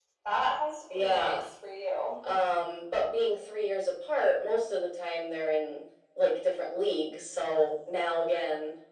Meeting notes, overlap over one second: none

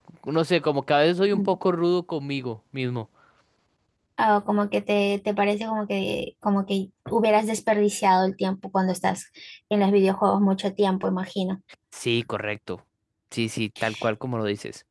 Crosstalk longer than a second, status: none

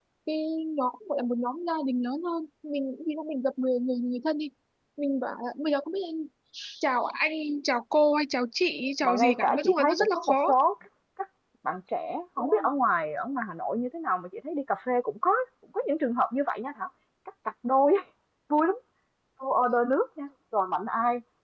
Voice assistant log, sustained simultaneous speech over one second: present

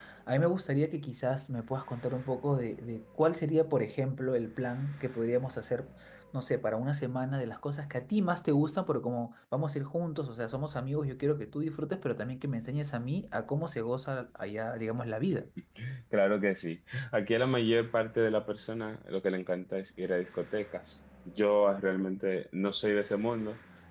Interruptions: none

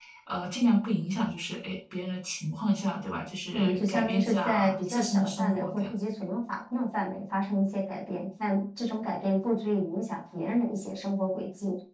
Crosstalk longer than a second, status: present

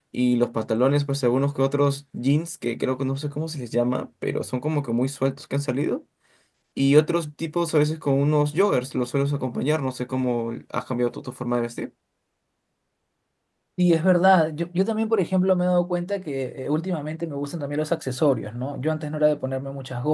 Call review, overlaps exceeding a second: none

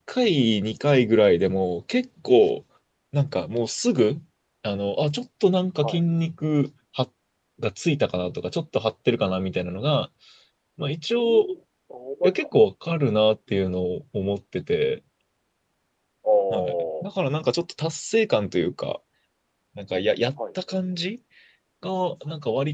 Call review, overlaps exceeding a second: none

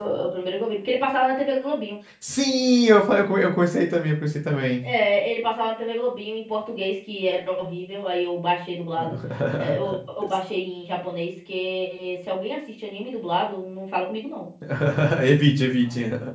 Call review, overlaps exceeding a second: none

